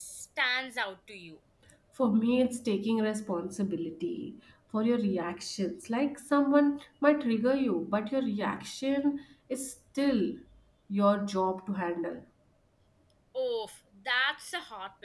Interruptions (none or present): none